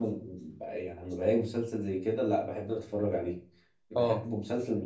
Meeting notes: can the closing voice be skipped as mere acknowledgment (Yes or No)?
Yes